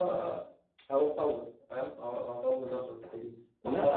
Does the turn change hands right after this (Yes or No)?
Yes